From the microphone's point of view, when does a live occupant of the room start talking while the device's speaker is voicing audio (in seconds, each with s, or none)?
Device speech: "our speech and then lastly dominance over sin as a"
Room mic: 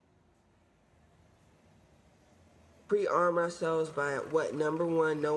2.9 s